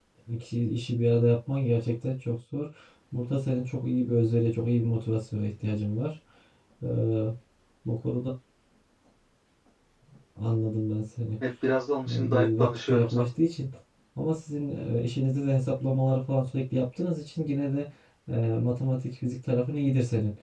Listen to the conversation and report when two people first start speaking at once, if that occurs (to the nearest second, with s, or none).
12 s